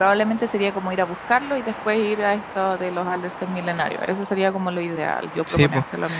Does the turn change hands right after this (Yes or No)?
Yes